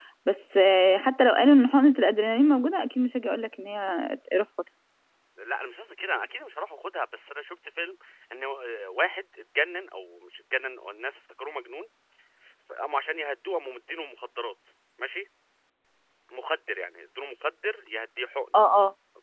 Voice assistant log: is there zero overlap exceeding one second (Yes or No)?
Yes